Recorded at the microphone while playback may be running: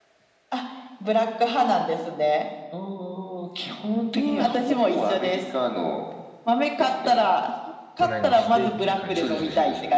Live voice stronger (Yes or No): No